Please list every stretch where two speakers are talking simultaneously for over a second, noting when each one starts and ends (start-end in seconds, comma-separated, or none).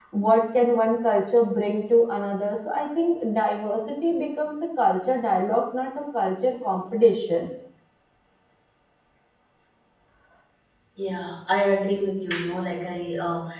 none